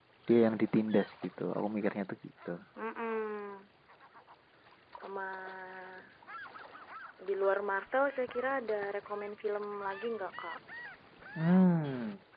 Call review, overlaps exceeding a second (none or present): none